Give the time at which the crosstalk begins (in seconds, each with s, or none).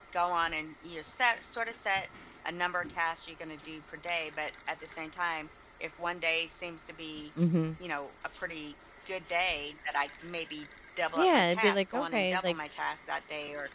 11.2 s